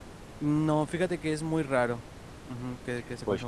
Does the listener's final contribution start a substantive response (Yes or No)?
Yes